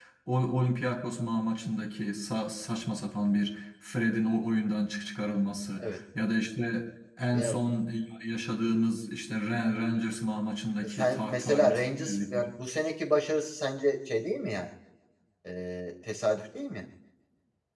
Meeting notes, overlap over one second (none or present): present